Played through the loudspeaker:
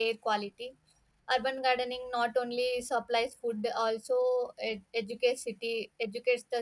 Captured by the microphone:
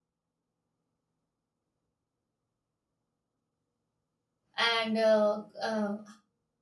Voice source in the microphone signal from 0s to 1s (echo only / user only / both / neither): neither